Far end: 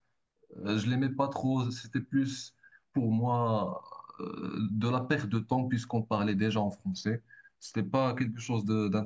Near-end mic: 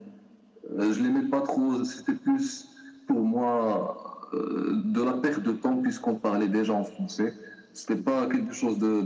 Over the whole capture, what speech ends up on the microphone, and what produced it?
echo only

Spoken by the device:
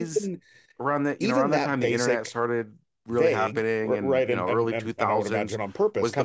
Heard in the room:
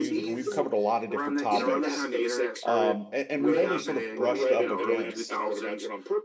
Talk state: both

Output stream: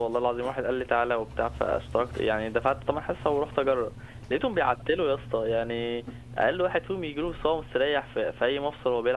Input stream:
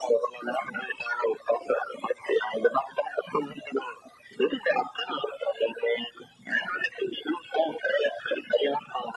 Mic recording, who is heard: echo only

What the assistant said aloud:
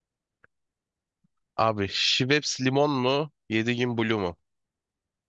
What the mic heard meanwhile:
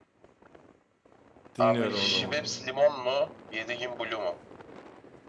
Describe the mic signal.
both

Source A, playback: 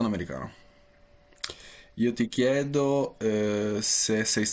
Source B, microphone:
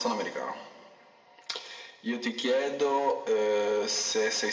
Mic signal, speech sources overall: echo only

